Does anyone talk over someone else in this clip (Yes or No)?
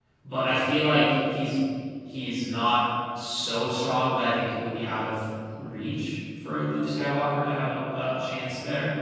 No